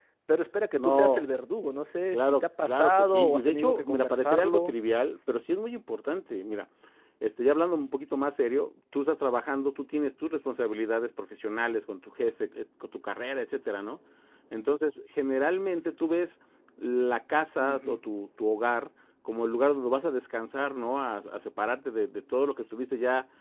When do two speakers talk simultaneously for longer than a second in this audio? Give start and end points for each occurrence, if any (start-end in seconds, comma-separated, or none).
2.1-4.7